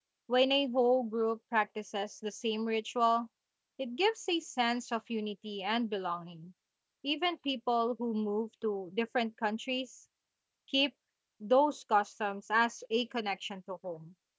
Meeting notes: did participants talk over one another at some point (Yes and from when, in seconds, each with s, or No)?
No